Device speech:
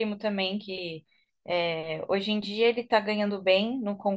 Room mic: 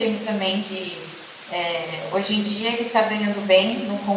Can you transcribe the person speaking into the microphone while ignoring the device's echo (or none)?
none